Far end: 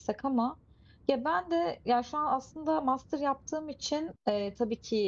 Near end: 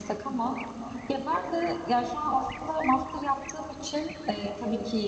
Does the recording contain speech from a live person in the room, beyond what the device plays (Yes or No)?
No